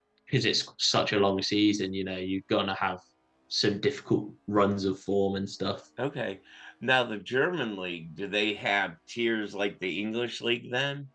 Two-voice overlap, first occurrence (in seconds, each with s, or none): none